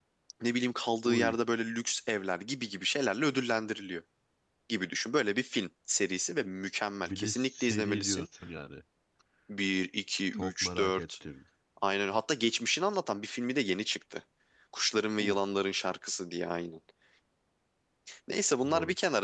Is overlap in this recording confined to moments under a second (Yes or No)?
No